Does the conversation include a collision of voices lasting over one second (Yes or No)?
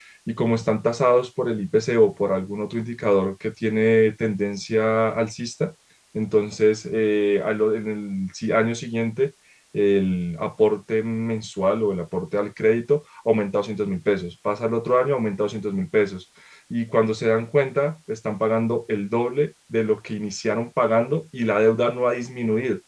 No